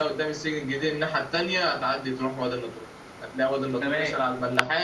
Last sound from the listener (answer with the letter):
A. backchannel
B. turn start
A